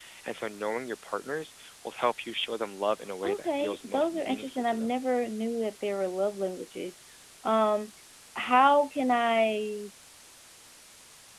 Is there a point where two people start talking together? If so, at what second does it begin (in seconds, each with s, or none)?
3.2 s